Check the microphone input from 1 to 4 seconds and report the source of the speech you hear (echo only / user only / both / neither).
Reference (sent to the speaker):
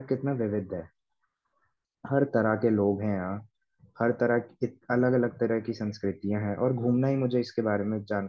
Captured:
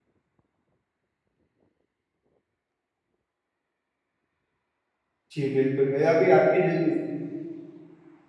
neither